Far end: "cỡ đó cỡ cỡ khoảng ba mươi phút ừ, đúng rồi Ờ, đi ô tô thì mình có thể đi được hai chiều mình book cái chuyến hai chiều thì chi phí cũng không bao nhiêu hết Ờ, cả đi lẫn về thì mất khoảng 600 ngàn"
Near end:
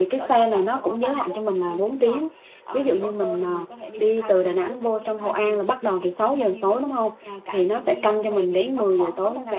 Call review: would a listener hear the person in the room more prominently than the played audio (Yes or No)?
Yes